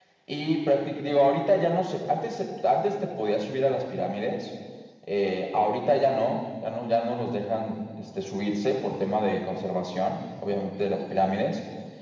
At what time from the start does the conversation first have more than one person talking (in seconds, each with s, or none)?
none